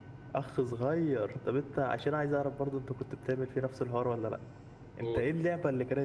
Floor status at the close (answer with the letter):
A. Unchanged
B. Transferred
A